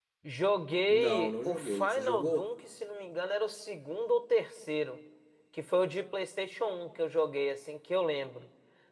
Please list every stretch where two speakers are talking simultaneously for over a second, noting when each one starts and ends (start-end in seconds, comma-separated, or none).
0.9-2.4